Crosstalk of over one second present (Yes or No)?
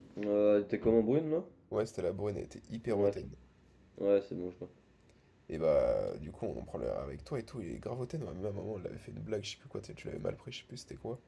No